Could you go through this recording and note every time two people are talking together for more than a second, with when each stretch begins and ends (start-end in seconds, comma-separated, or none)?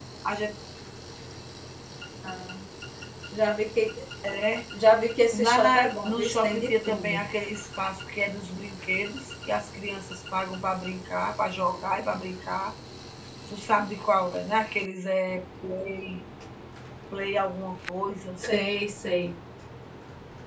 5.3-7.2